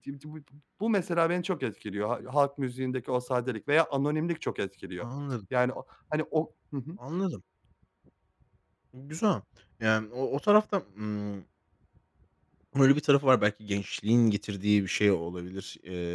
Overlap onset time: none

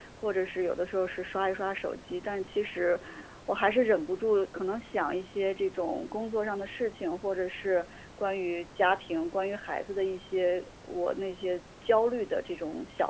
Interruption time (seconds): none

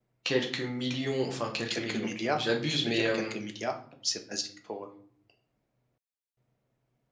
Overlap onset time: 1.6 s

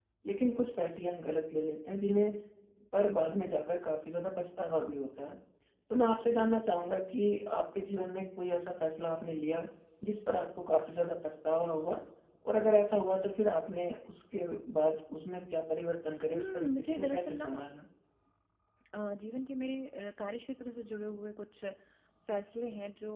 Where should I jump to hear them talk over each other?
16.3 s

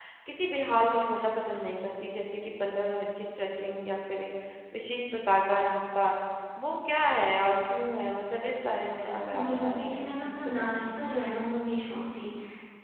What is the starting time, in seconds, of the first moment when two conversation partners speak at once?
9.1 s

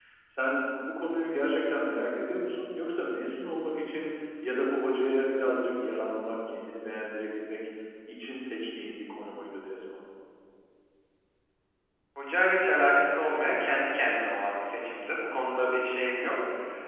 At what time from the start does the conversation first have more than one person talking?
none

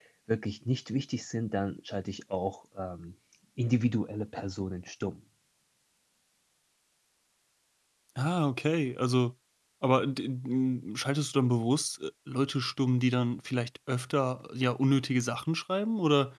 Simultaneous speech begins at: none

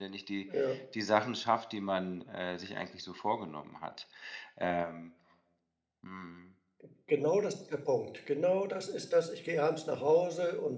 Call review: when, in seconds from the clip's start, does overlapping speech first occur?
none

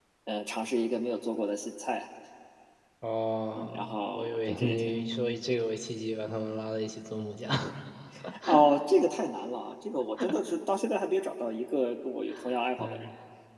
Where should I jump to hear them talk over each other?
3.6 s

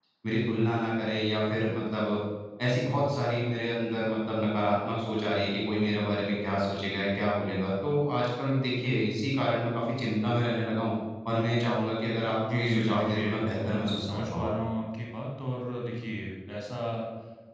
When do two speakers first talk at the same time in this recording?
12.2 s

